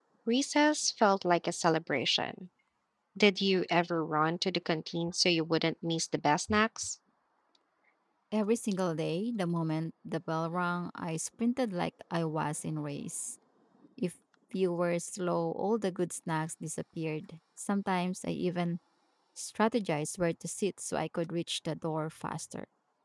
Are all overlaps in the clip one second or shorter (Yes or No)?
Yes